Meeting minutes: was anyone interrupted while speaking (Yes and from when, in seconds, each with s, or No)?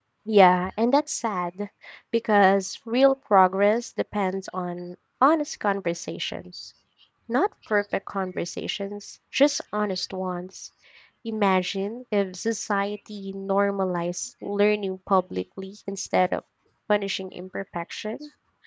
No